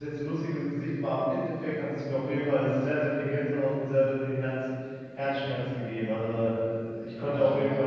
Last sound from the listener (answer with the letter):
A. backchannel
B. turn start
A